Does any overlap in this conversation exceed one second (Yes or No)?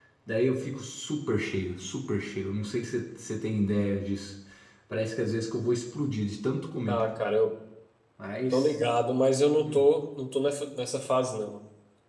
No